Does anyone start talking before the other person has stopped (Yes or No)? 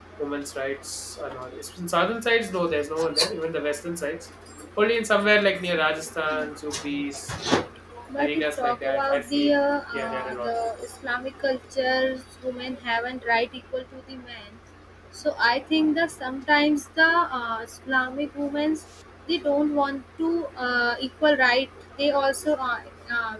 Yes